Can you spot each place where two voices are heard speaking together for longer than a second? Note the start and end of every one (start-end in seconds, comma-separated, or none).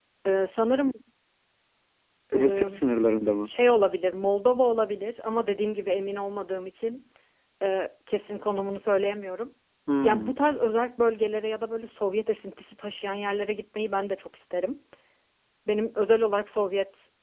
none